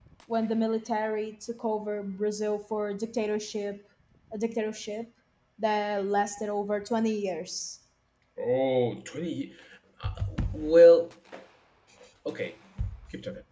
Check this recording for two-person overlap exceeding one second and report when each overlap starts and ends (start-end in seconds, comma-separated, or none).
none